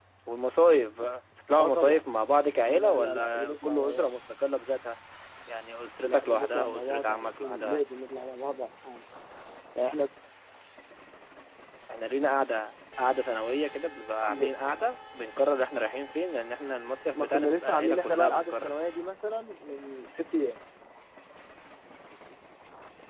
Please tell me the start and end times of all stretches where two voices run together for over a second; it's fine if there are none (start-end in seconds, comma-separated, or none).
2.6-4.1, 6.0-7.8, 17.1-18.7